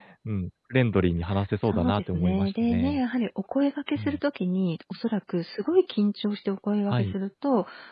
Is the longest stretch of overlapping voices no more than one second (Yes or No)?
No